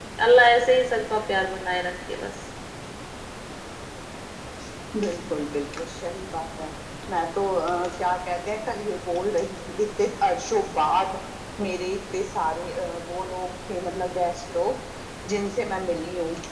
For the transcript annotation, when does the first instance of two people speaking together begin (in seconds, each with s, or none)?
none